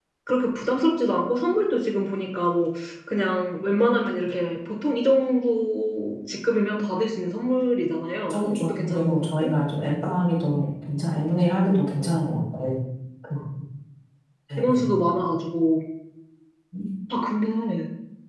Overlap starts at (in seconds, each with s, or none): 8.2 s